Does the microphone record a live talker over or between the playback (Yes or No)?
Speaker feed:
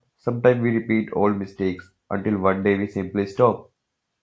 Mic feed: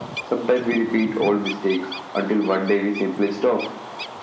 No